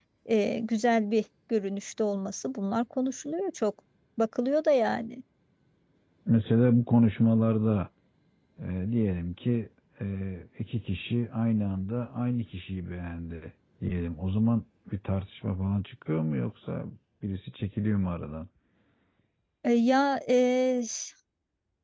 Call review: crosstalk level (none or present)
none